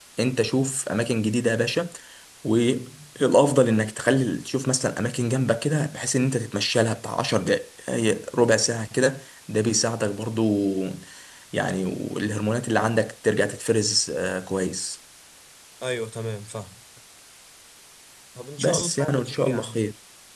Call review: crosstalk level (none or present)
present